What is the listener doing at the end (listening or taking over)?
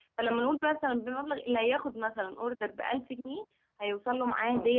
listening